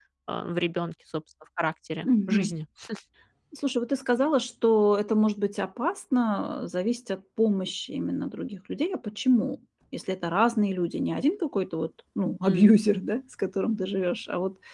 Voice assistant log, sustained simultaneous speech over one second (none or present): none